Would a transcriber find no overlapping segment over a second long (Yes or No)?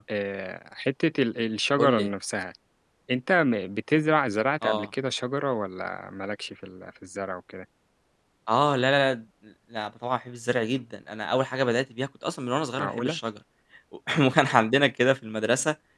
Yes